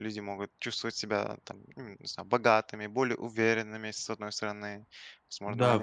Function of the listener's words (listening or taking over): taking over